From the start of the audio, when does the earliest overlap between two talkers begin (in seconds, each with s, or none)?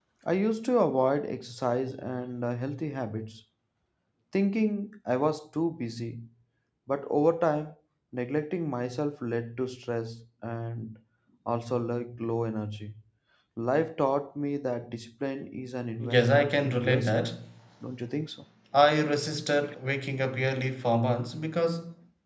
16.0 s